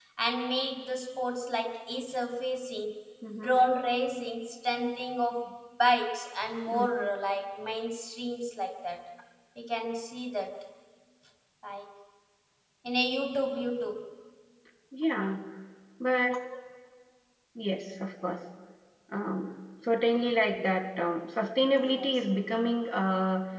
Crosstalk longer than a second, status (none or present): none